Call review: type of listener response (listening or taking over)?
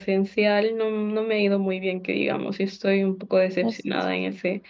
listening